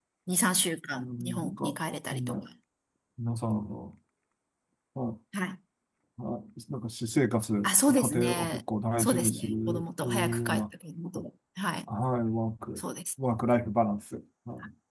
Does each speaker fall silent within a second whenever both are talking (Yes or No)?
No